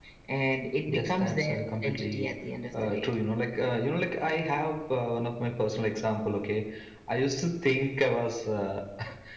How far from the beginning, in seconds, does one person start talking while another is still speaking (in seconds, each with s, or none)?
0.9 s